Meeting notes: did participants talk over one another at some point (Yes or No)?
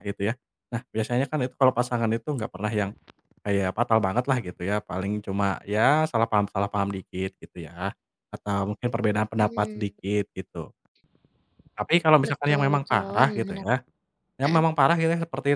Yes